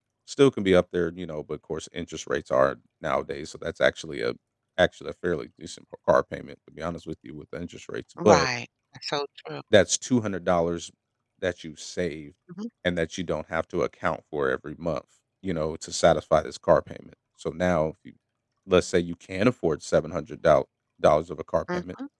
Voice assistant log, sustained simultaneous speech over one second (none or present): none